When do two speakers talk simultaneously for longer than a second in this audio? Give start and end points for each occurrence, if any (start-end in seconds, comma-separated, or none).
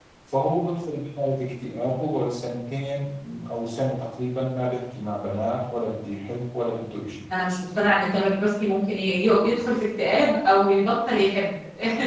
none